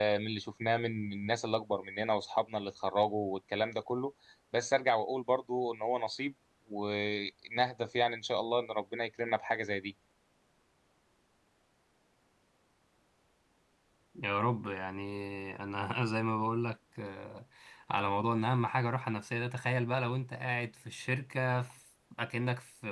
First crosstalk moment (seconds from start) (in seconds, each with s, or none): none